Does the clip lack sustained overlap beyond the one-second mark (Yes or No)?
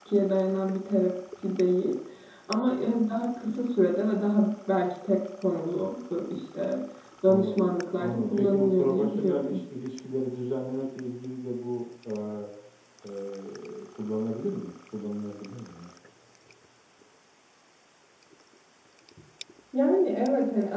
No